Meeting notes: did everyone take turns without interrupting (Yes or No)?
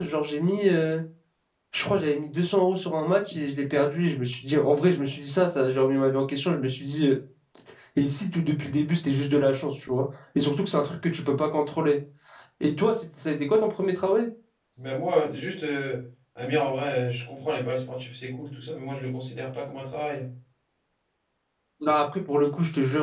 Yes